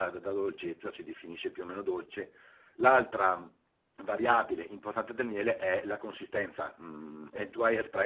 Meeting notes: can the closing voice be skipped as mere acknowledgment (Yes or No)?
Yes